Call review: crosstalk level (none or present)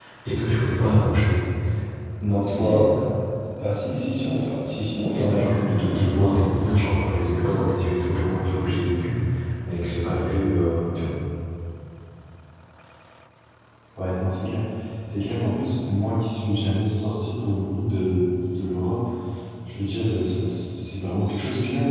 present